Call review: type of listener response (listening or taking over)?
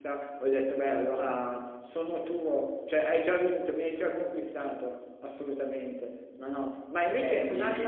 listening